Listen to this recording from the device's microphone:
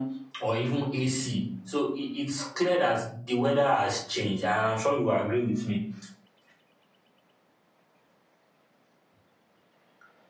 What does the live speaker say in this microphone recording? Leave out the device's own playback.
none

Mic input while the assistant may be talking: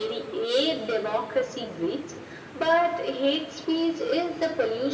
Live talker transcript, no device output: none

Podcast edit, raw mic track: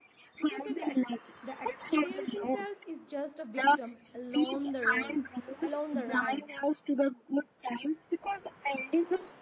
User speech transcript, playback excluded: you can say the exp- the experiencing self is just a victim along the road along the ride

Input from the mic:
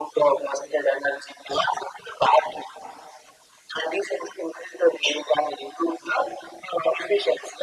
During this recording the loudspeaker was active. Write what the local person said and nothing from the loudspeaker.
none

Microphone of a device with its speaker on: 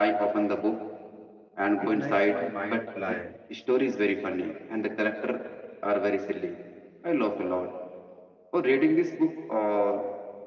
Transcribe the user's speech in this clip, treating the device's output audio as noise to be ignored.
it makes my mind fly

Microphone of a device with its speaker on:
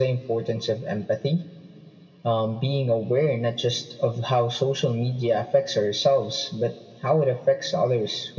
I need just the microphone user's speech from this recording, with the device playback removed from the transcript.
none

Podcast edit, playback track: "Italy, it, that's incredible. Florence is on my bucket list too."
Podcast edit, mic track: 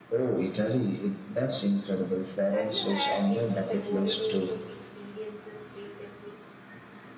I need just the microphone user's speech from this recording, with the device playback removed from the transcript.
Have you had any memorable food experiences recently?

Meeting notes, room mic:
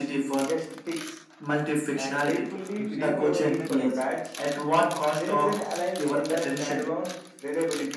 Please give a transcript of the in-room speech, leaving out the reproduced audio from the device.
to save me from the tech.

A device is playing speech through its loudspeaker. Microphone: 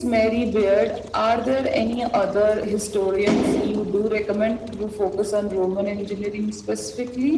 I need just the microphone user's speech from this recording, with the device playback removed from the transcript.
none

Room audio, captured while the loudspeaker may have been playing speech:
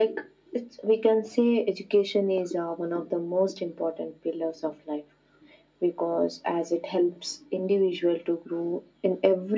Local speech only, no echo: none

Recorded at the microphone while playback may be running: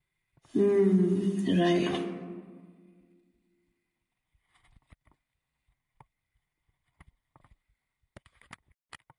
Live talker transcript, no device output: mm, right

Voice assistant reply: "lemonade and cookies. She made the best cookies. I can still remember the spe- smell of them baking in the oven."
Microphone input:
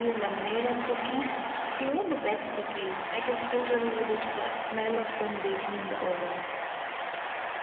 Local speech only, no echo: none

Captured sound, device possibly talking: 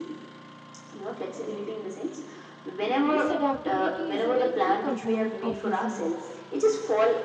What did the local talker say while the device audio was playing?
this adaptability is a very key component of resilience

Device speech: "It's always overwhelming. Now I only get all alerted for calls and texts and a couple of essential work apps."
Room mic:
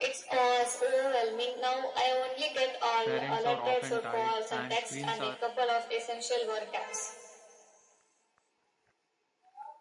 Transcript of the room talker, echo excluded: Parents are often tired, and screens are

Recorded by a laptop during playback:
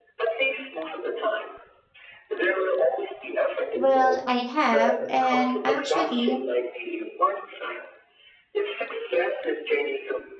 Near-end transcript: Well, I have, and actually,

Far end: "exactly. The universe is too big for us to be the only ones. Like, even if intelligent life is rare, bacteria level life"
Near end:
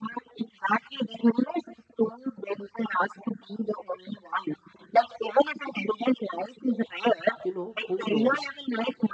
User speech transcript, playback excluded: you know, who knows?

